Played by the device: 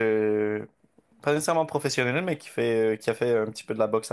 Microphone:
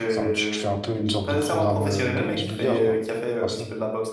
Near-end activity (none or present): present